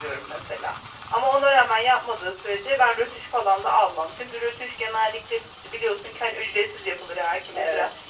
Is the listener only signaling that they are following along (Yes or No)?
Yes